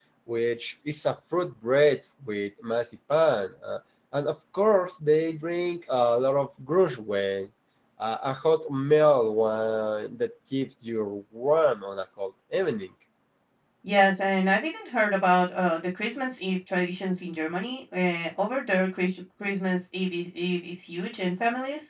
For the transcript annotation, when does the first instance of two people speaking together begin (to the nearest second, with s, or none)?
none